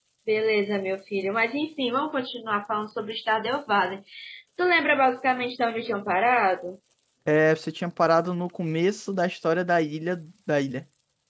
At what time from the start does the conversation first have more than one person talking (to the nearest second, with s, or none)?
none